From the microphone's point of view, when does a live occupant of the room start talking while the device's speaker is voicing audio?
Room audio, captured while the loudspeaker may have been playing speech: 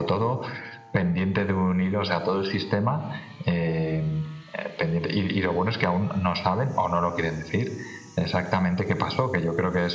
none

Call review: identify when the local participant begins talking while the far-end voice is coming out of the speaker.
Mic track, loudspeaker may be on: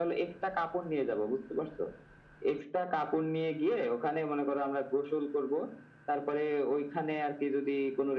none

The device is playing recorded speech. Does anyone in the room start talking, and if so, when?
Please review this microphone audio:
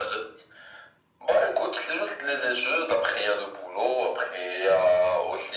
none

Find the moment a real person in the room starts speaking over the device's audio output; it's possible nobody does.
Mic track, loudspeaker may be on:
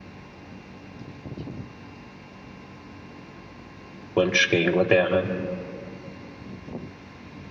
4.1 s

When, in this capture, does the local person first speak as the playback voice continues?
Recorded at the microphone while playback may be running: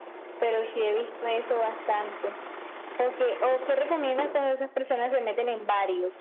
none

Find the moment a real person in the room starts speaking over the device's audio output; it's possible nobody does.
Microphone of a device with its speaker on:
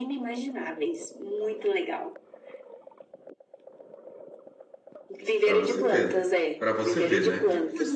5.4 s

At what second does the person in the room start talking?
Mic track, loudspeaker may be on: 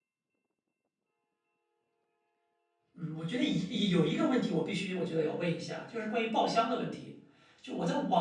2.9 s

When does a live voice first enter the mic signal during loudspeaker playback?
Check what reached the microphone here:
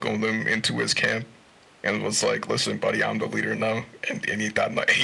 none

